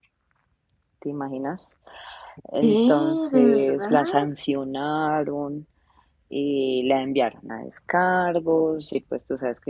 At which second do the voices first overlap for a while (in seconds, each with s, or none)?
2.6 s